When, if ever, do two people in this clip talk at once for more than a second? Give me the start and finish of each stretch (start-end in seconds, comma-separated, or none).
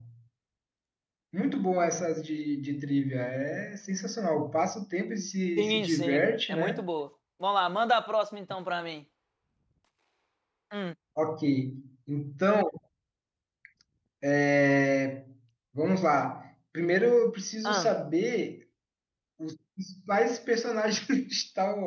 5.6-6.8